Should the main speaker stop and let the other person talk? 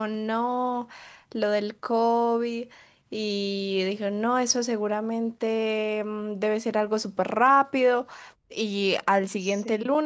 No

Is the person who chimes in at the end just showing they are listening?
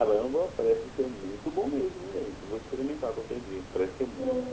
No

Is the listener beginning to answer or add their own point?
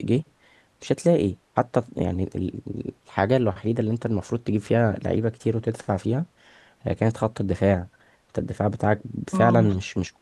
Yes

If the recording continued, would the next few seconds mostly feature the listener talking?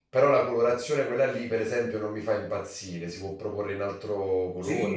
Yes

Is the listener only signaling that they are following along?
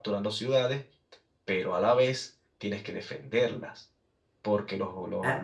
Yes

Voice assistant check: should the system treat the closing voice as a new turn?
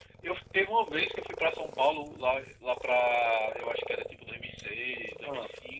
No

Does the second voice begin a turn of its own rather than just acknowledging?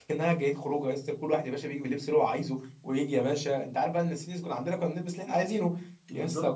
No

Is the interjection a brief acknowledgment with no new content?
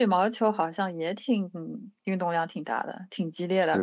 No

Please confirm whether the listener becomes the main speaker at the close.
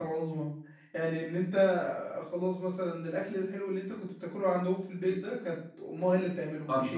No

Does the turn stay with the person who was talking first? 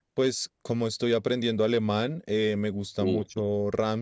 Yes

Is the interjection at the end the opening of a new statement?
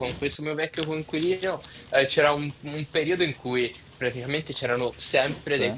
No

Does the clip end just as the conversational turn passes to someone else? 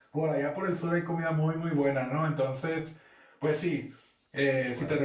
No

